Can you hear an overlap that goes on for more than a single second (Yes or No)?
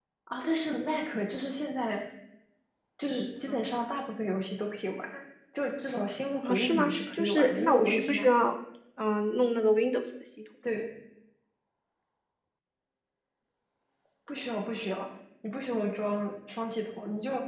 Yes